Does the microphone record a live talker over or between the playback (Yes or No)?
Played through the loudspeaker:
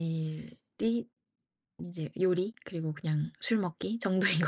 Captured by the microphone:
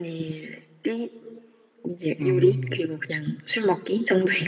Yes